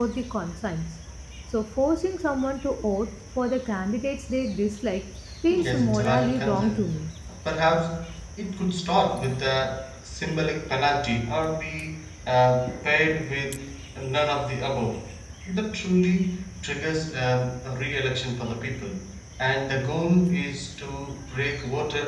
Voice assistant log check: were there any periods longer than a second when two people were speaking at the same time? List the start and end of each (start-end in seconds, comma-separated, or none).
5.5-7.0